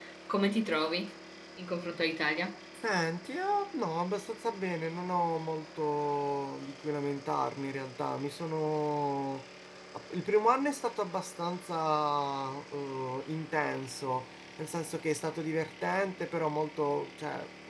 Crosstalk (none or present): none